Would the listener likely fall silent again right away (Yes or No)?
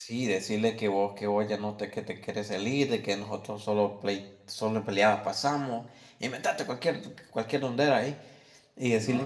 Yes